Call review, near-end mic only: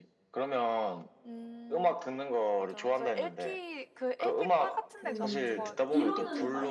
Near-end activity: present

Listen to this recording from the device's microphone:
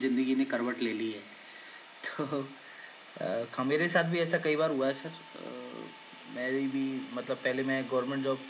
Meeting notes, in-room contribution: none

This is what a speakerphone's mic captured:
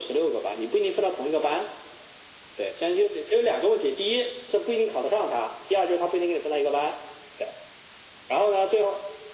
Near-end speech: none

